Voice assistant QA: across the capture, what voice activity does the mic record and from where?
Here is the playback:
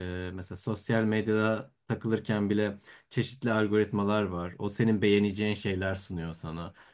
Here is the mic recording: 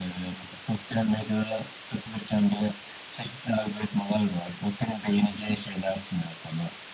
echo only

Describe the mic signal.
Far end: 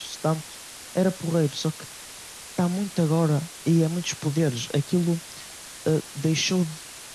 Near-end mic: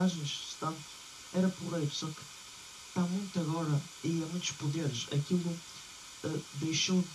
echo only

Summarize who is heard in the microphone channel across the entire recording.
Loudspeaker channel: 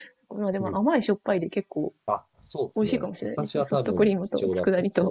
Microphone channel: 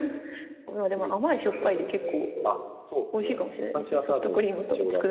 both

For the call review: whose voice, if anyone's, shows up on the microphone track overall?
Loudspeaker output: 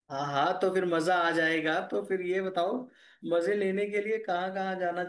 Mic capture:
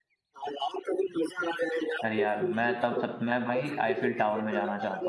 both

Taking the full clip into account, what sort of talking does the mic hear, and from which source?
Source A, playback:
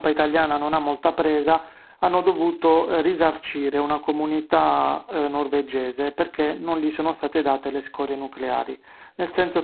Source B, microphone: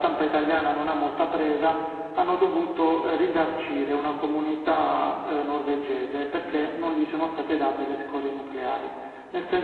echo only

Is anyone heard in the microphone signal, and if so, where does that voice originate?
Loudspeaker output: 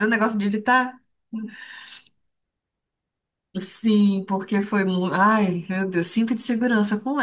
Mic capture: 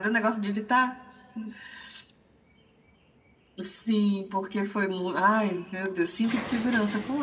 echo only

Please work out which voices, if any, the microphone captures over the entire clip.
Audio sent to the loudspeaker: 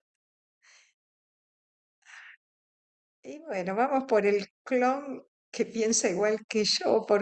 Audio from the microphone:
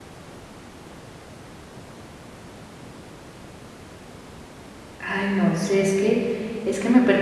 user only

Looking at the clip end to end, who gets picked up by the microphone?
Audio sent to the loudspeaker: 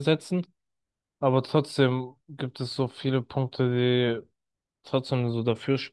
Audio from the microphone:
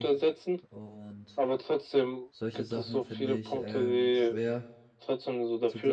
both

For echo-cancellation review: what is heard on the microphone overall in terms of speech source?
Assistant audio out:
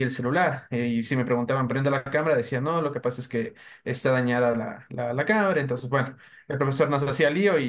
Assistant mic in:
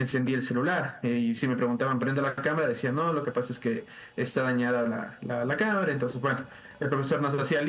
echo only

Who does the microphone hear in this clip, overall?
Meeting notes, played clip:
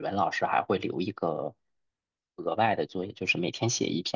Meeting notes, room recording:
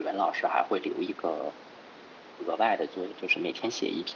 echo only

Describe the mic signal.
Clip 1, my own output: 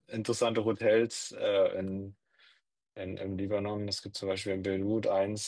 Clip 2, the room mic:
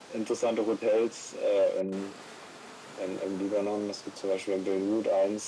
echo only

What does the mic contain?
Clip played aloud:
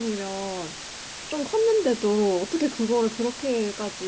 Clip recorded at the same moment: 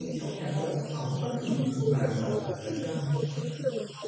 both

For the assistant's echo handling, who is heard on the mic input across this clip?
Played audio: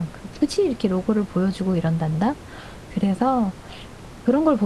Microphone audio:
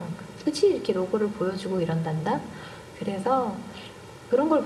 echo only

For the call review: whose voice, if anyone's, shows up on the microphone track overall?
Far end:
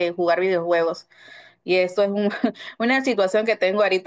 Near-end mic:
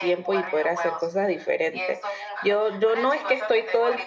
both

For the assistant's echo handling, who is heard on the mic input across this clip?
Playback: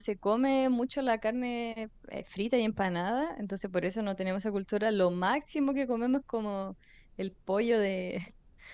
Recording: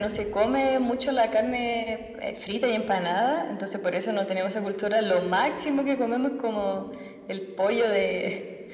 echo only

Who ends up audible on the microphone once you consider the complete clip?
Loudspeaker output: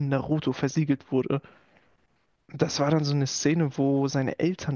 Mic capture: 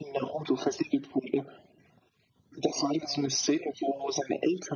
echo only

